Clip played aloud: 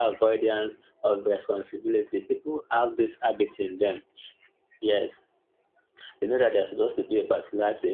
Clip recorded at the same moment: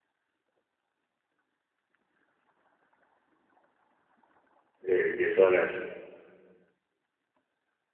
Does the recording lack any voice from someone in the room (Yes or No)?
No